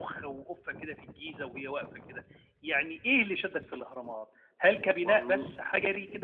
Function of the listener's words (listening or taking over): listening